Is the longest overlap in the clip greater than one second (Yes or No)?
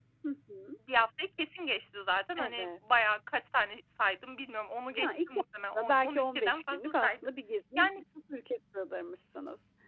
Yes